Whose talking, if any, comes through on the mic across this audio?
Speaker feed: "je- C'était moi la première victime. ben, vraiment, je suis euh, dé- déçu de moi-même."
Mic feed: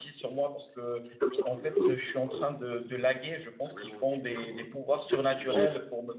both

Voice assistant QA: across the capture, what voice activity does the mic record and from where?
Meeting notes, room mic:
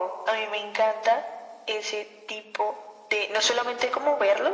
echo only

